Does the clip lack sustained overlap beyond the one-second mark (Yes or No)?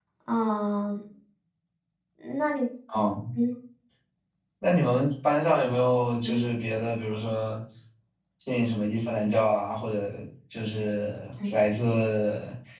Yes